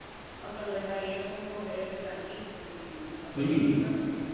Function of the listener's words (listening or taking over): taking over